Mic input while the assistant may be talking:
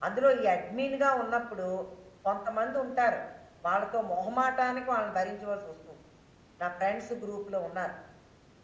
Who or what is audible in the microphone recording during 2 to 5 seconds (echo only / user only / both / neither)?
echo only